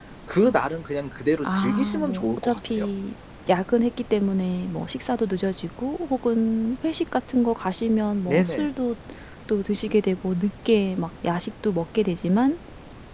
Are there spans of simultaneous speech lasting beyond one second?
Yes, from 1.4 s

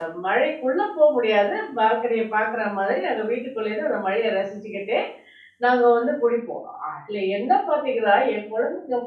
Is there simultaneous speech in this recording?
No

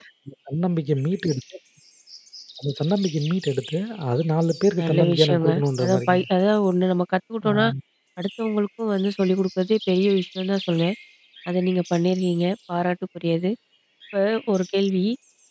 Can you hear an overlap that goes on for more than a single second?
Yes, from 4.8 s

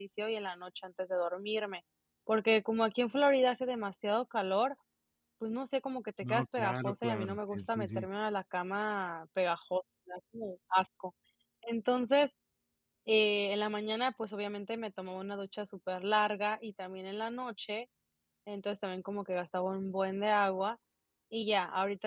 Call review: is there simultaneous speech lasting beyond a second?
Yes, from 6.2 s

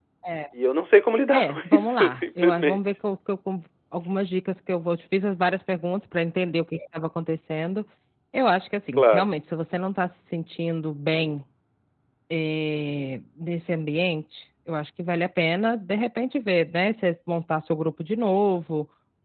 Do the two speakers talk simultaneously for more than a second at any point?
Yes, from 1.3 s

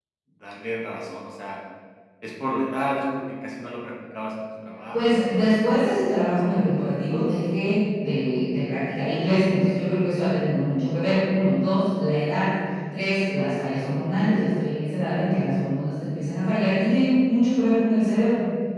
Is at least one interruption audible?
Yes, from 4.9 s

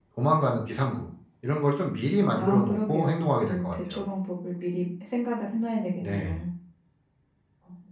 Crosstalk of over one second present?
Yes, from 2.4 s

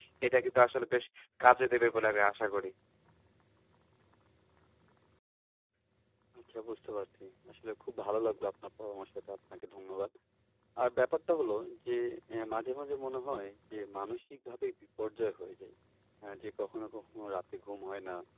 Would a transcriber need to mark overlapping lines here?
No

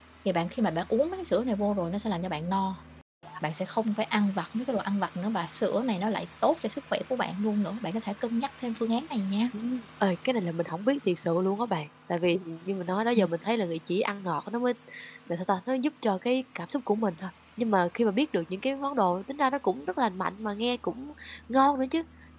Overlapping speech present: No

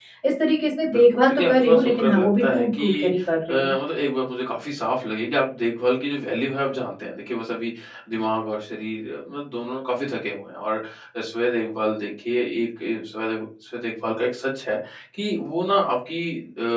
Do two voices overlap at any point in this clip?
Yes, from 0.9 s

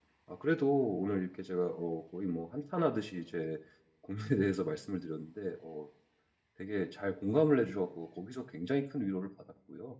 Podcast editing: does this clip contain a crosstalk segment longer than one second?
No

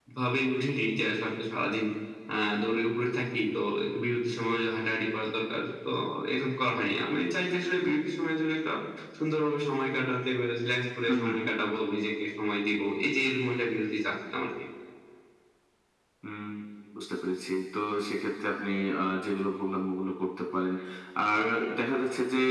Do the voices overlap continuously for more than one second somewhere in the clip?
No

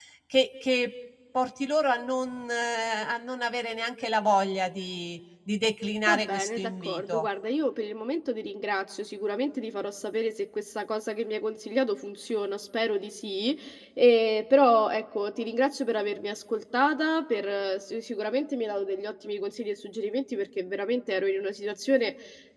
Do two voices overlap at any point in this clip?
Yes, from 6.1 s

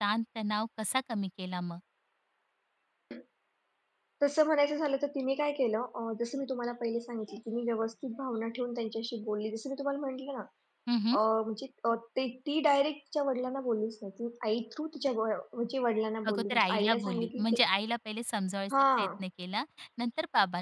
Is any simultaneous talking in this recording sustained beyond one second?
Yes, from 16.3 s

